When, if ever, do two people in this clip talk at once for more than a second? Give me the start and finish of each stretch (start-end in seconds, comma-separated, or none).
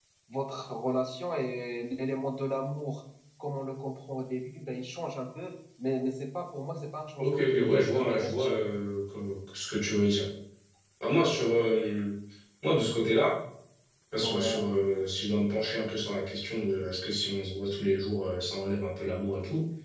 7.2-8.5